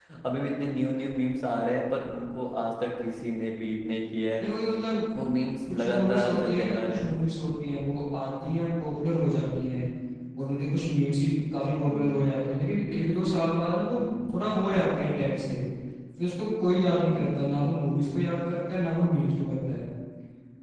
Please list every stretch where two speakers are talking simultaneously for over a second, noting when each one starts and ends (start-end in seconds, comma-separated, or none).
5.7-7.2